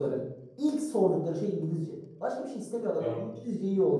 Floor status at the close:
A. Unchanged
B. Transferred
A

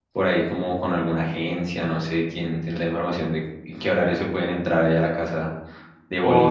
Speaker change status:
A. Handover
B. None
A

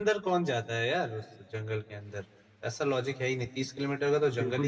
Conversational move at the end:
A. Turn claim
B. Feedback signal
A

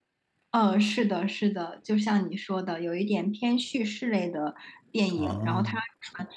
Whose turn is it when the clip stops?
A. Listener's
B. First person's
B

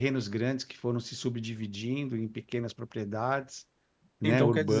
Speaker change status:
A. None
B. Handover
B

